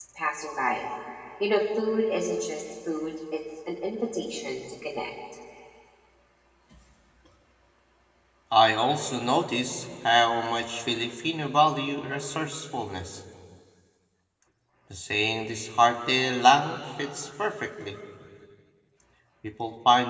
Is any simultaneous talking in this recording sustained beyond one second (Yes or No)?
No